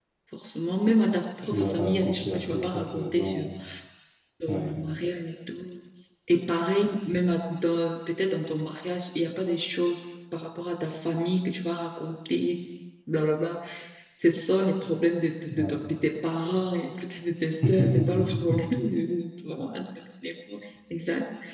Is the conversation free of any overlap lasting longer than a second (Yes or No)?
No